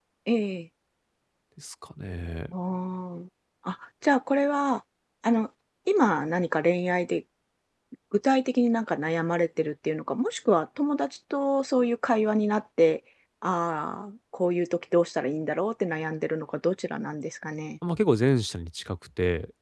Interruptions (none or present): none